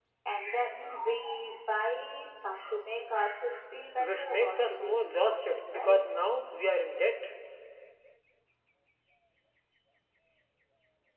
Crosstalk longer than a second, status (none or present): present